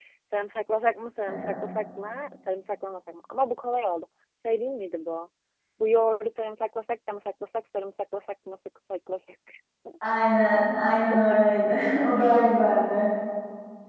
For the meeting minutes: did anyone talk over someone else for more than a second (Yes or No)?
No